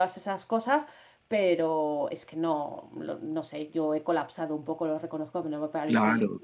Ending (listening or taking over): taking over